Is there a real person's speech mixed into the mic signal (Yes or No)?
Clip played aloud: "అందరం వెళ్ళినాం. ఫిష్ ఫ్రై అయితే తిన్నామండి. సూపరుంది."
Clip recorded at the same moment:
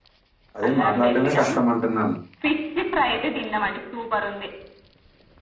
Yes